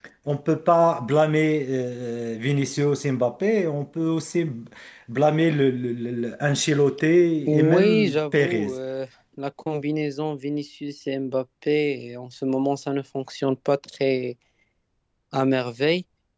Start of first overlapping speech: 7.5 s

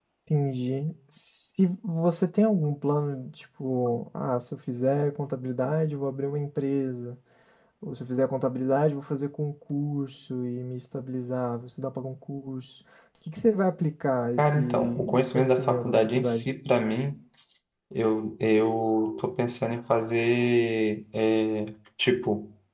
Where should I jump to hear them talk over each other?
14.4 s

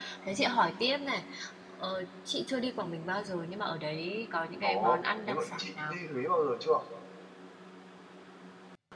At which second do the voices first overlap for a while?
4.6 s

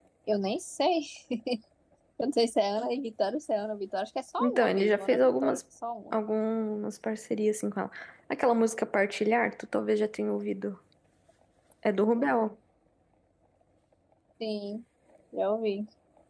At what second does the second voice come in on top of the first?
4.4 s

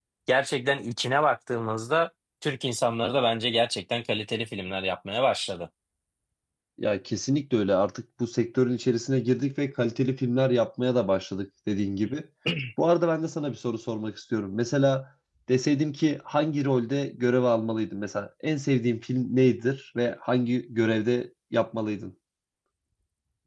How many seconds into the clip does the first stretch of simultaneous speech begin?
none

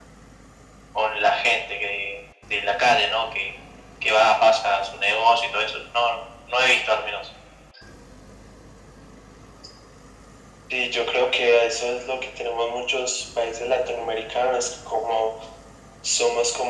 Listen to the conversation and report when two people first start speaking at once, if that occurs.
none

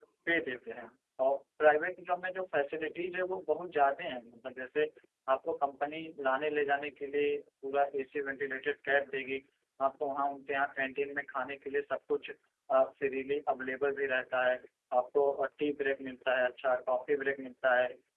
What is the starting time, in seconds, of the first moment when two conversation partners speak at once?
none

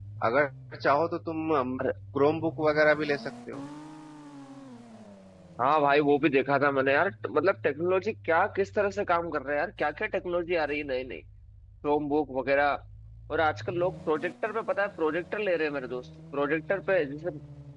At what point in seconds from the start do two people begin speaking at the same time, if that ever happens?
none

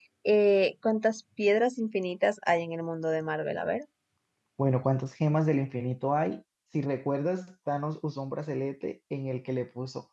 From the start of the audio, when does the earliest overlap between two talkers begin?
none

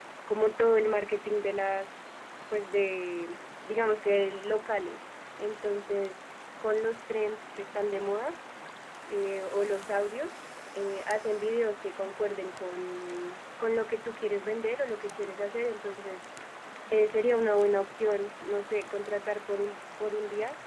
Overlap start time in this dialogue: none

